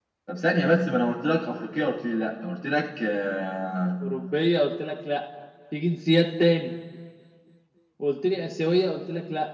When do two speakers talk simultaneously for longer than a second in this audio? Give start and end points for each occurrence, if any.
none

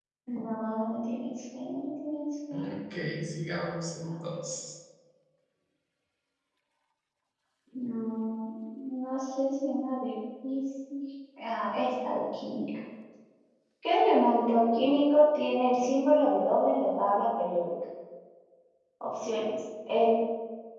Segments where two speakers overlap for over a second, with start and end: none

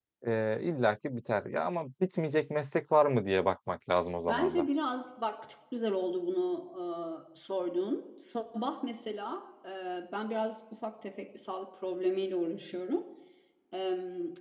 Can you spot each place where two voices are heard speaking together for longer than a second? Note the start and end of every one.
none

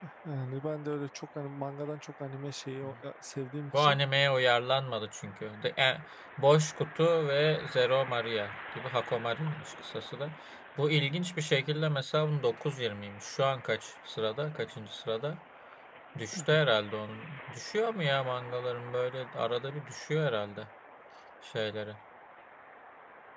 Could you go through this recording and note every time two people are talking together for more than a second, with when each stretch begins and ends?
none

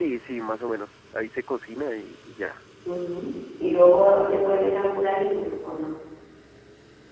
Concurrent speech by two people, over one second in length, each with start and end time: none

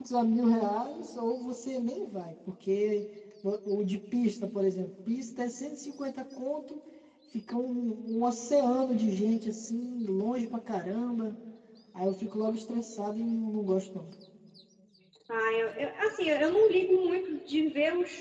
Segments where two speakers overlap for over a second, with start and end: none

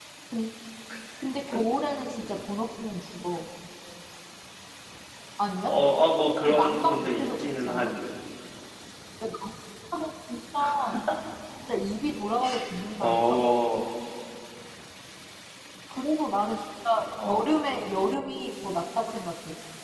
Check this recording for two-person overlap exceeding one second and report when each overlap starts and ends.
6.4-7.9

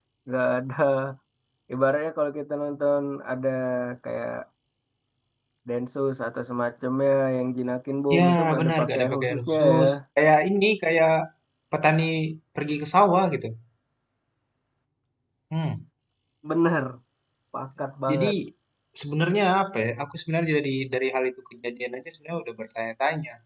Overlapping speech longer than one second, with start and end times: 8.2-9.8

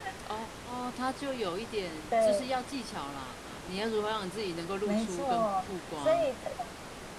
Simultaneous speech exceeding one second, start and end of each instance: 4.8-6.3

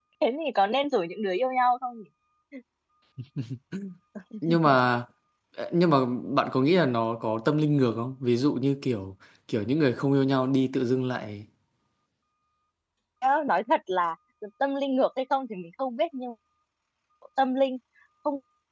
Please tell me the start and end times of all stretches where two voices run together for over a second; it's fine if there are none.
none

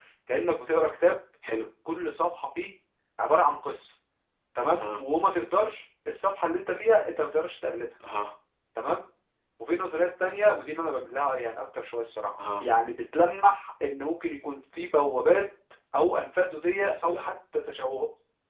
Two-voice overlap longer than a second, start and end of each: none

